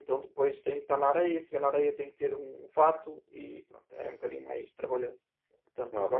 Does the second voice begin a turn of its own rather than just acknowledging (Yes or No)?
Yes